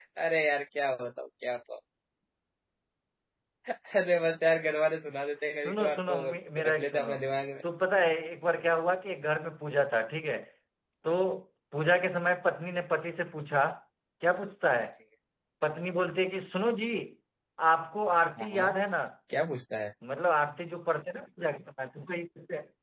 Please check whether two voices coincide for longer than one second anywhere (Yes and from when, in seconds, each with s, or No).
Yes, from 5.6 s